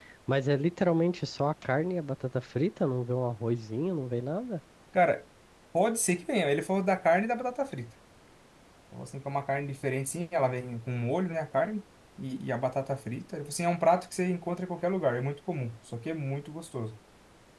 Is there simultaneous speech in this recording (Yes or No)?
No